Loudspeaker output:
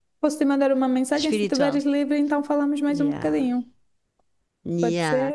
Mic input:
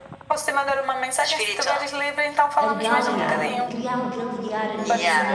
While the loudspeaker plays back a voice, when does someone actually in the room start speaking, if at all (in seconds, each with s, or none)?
2.5 s